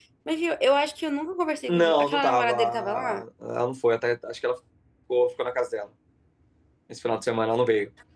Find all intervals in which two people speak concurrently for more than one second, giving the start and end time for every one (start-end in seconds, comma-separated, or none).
1.7-3.2